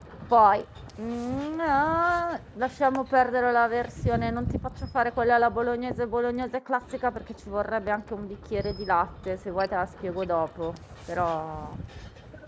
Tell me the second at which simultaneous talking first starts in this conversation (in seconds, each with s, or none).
none